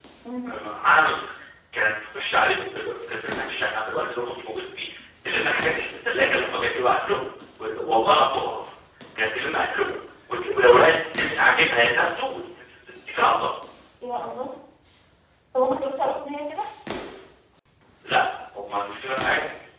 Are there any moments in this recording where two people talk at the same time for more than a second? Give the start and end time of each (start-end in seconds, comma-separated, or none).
none